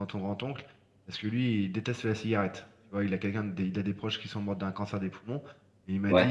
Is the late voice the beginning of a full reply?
No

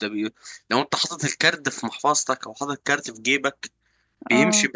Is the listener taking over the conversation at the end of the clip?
No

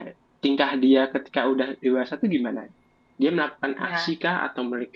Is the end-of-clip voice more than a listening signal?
No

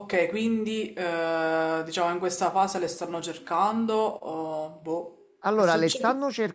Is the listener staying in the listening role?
No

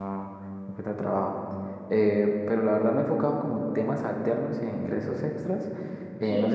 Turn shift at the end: No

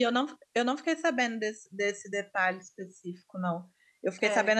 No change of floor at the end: Yes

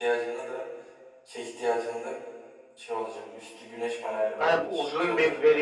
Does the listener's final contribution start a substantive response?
Yes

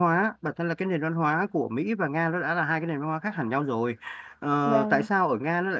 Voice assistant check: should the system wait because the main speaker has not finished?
Yes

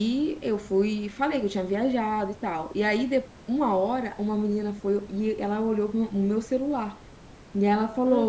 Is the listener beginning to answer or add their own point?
No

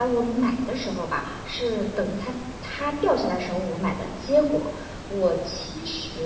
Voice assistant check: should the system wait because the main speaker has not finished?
Yes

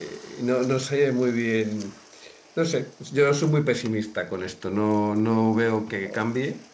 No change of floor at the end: Yes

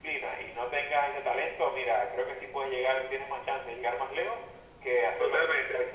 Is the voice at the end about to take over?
Yes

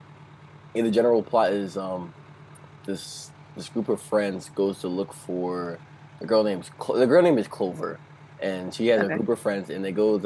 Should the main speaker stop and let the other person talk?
No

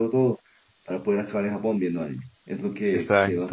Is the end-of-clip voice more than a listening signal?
No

